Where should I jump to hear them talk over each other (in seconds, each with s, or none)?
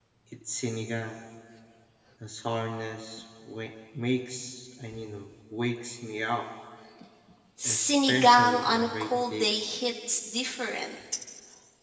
7.6 s